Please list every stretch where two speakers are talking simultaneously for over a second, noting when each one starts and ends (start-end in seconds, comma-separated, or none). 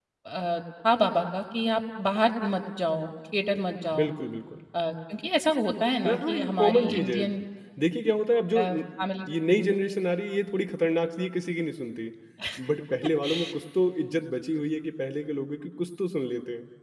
6.0-7.2